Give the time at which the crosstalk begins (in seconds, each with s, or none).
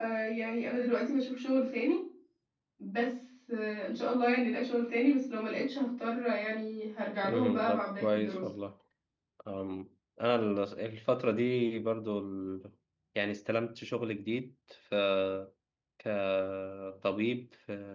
7.2 s